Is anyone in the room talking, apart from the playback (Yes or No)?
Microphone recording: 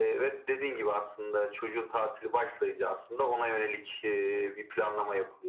No